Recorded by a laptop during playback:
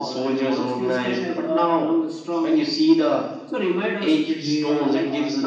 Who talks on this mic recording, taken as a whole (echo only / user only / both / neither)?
both